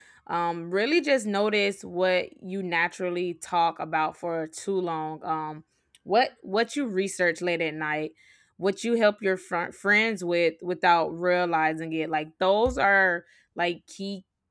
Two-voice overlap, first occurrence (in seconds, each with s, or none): none